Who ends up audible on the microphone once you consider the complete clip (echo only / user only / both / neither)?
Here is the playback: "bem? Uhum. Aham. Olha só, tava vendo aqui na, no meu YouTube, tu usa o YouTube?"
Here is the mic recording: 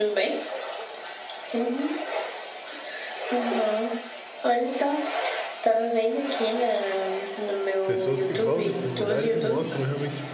both